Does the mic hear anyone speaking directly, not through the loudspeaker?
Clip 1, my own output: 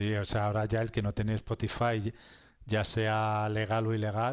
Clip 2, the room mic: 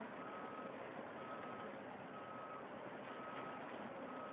No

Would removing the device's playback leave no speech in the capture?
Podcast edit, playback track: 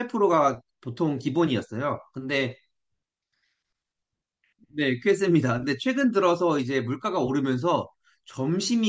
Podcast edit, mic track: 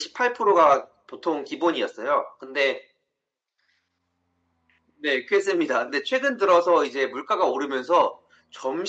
Yes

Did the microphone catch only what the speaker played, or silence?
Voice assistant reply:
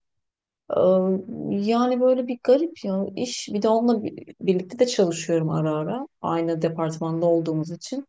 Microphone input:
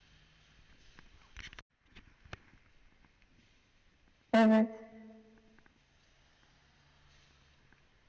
No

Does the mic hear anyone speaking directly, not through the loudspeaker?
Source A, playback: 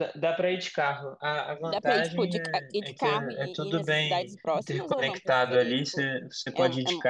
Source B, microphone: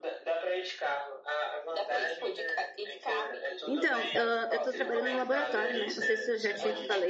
Yes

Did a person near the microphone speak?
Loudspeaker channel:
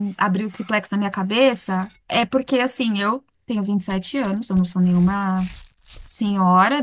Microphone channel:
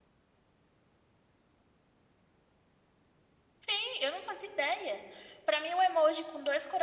Yes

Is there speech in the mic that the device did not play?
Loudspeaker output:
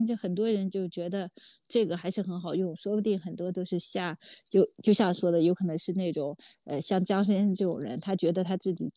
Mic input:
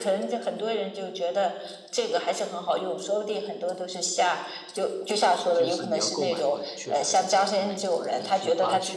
Yes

